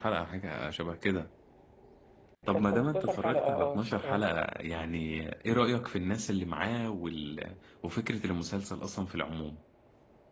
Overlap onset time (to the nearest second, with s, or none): 3 s